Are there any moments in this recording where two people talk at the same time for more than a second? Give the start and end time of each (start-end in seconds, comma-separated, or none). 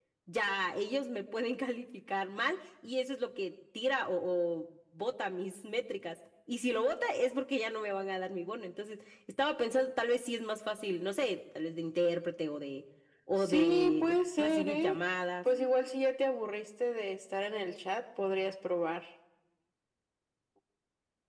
13.4-15.0